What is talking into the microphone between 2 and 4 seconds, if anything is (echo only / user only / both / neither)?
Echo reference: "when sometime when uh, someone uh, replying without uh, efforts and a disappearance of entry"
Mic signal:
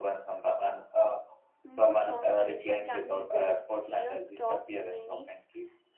both